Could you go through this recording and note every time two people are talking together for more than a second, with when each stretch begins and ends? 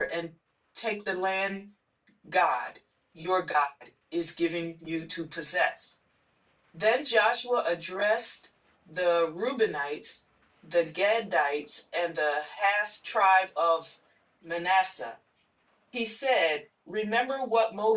none

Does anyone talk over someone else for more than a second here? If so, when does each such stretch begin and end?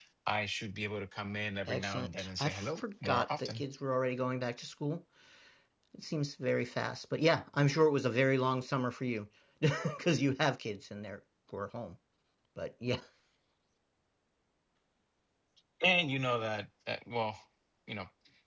1.7-3.6

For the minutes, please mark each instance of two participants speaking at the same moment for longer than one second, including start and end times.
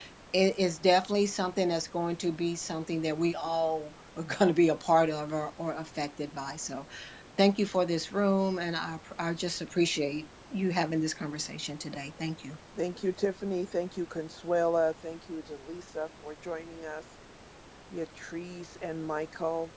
none

